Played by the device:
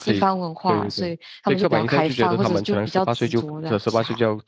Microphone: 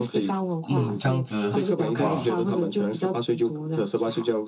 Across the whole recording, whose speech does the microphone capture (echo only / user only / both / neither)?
both